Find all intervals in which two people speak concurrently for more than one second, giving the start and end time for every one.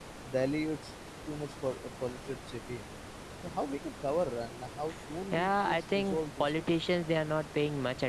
5.3-6.8

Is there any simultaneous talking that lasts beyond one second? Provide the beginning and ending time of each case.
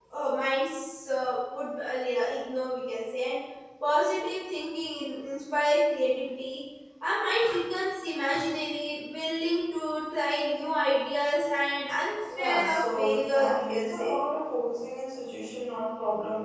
12.3-14.2

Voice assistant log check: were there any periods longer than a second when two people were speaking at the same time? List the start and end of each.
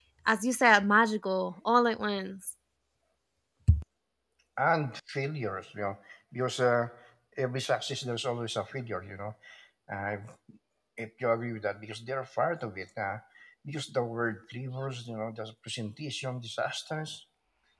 none

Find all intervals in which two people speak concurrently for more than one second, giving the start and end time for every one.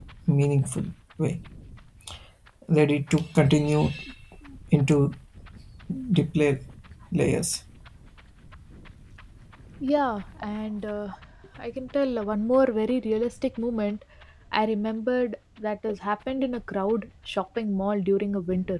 none

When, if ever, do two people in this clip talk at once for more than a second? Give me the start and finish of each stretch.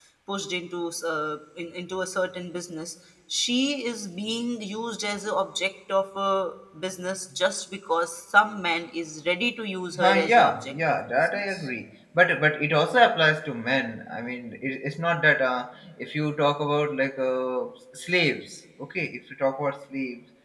10.0-11.7

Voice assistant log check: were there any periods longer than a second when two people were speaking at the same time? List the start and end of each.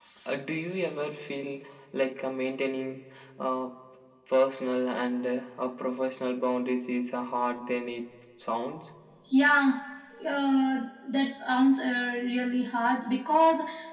none

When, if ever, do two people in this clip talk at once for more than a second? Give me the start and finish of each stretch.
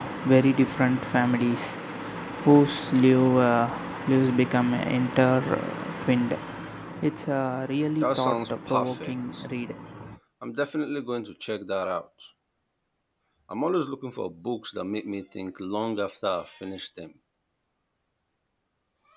8.0-9.4

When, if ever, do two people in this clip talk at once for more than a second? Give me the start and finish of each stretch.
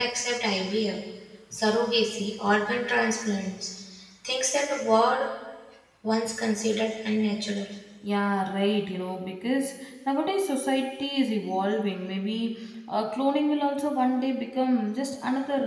none

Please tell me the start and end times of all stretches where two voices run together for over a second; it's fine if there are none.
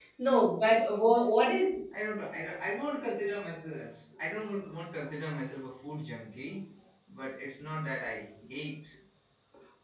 none

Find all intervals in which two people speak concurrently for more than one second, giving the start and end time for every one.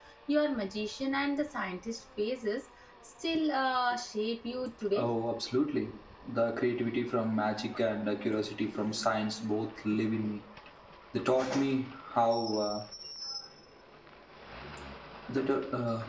none

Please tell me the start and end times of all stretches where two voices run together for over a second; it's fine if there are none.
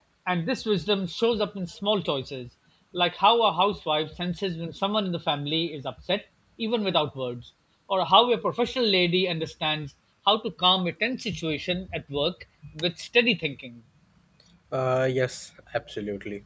none

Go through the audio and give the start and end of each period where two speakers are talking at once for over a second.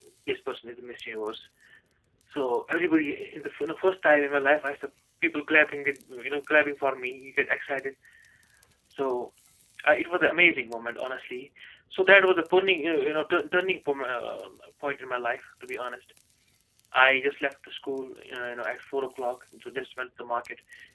none

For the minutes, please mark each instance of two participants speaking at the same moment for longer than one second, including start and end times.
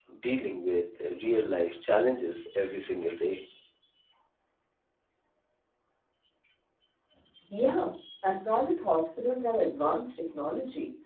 none

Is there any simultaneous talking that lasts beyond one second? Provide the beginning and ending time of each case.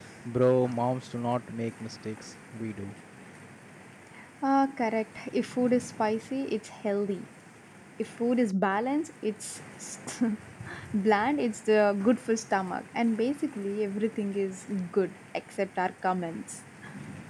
none

